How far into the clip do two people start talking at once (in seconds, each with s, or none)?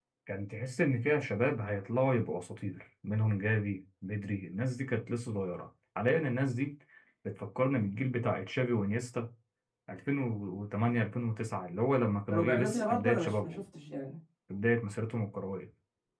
12.3 s